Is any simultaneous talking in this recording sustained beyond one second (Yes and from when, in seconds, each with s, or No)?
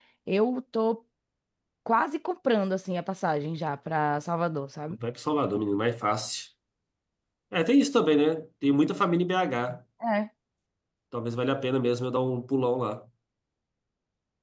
No